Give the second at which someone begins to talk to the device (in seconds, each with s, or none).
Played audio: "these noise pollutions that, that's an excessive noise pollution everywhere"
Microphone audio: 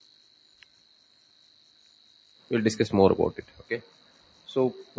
2.5 s